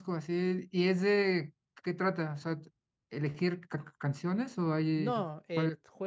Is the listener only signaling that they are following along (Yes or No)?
No